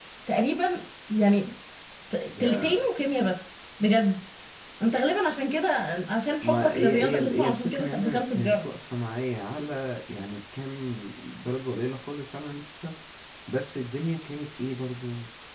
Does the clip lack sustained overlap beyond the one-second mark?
No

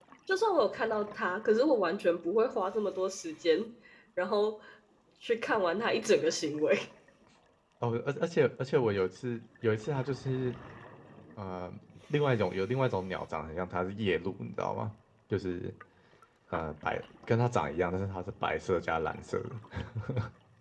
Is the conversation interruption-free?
Yes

